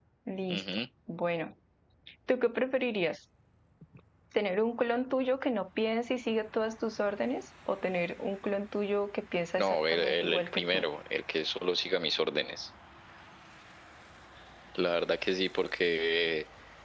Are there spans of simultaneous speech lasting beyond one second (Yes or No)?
Yes